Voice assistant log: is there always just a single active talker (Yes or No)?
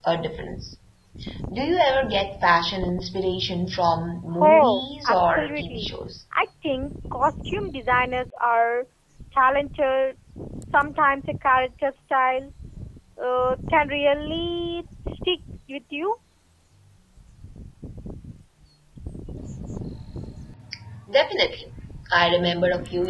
No